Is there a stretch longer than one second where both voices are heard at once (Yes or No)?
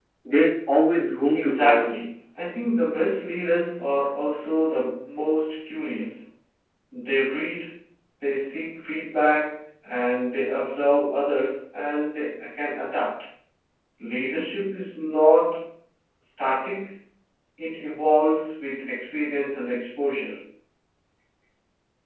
No